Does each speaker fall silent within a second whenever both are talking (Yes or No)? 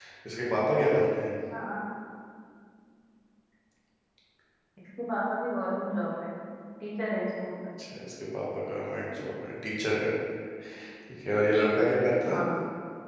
Yes